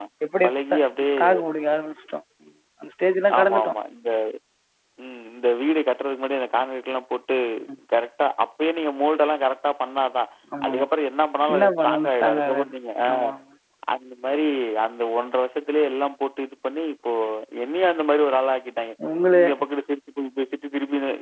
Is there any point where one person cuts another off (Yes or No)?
Yes